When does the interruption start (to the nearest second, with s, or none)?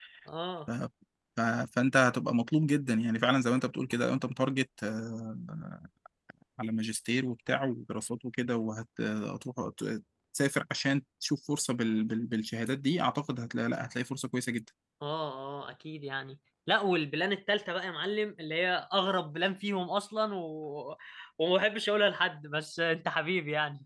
none